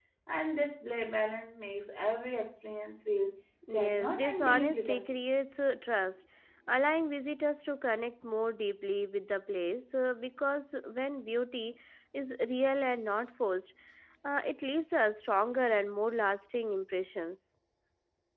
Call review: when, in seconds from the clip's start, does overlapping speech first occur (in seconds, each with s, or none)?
3.6 s